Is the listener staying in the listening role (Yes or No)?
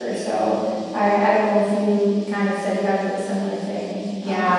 No